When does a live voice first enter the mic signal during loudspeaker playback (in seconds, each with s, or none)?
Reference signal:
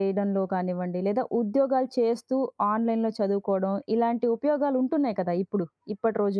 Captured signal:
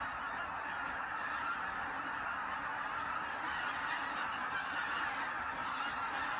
none